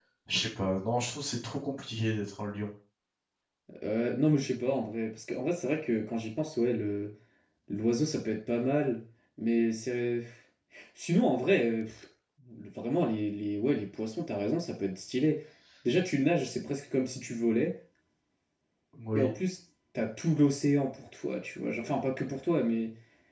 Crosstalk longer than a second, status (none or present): none